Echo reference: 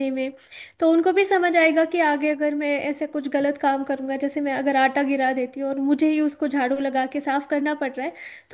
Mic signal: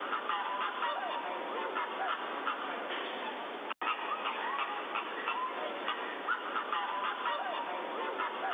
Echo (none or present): none